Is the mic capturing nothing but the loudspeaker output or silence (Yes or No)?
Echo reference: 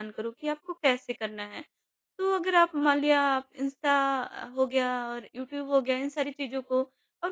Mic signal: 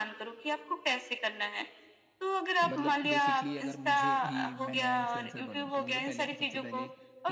No